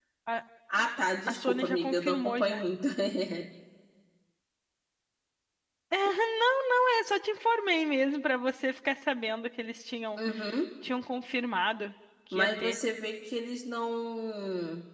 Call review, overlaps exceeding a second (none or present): present